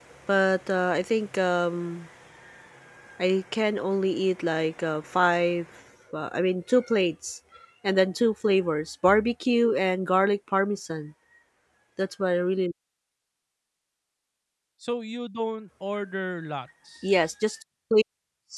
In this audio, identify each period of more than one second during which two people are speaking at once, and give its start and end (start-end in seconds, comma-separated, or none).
none